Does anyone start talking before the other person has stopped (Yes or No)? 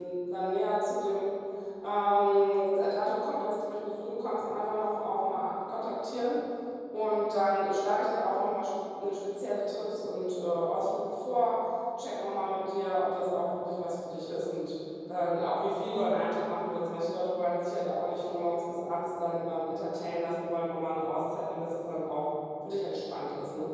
No